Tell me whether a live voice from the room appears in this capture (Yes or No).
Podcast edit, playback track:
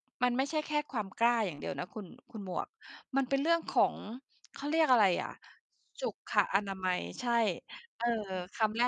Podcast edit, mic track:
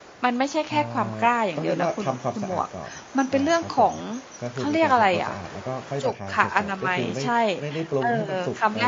Yes